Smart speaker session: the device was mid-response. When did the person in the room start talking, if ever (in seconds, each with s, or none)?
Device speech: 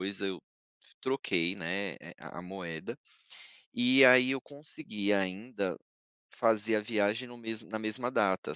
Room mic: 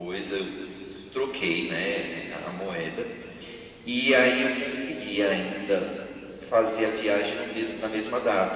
none